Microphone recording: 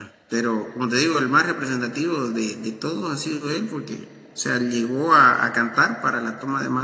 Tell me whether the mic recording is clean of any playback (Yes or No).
Yes